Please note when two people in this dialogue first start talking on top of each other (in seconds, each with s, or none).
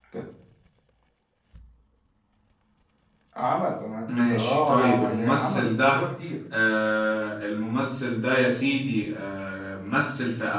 4.2 s